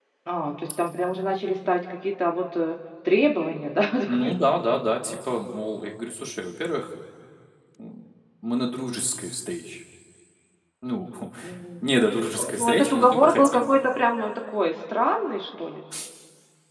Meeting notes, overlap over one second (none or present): present